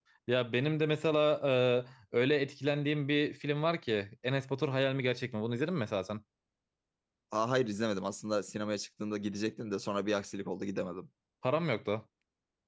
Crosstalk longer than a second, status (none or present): none